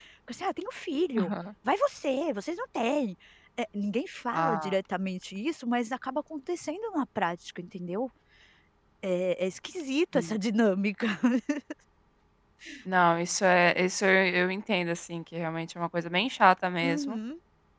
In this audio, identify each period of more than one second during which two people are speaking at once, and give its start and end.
none

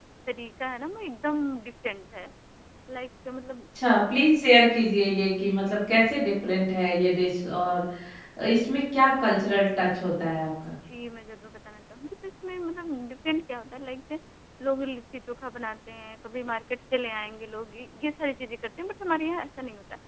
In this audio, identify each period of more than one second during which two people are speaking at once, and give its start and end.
none

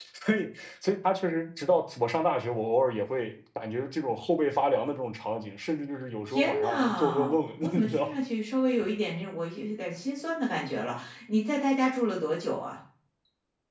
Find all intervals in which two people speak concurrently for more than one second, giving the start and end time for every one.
6.3-8.1

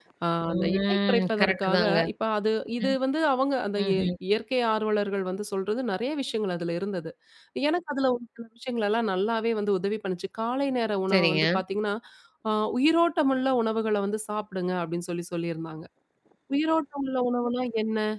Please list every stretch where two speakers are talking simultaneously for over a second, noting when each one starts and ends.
0.5-2.0

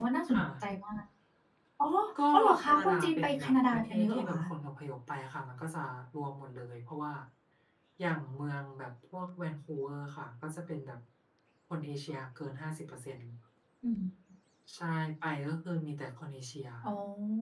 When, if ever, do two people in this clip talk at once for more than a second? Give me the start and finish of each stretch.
2.3-4.4

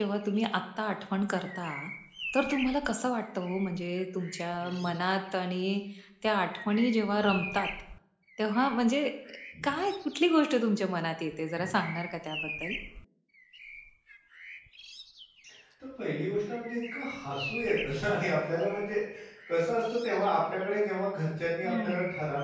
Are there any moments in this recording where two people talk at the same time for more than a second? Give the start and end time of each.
none

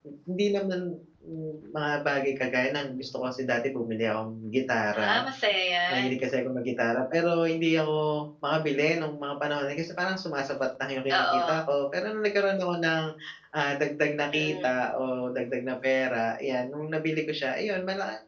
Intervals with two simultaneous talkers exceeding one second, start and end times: none

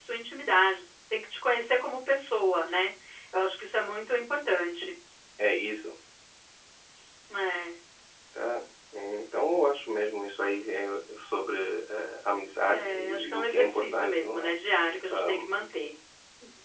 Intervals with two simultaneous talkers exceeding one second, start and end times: 12.7-14.5

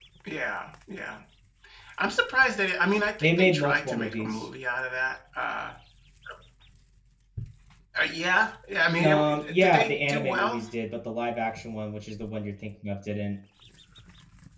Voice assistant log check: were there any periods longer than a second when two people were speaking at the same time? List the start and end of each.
3.2-4.5, 9.0-10.5

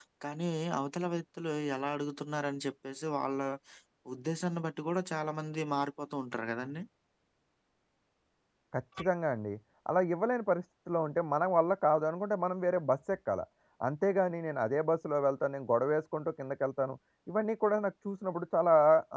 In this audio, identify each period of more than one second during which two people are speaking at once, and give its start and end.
none

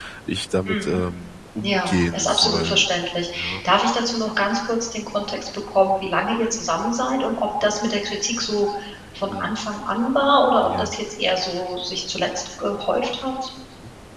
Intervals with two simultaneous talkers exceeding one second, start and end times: 1.6-2.9

